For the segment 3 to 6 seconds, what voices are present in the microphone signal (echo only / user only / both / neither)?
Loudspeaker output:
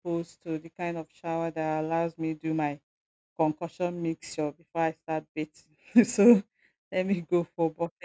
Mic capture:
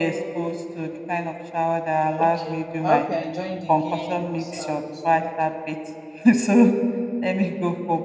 both